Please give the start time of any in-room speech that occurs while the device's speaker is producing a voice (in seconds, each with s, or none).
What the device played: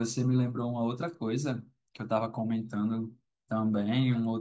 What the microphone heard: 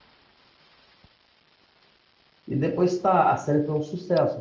2.5 s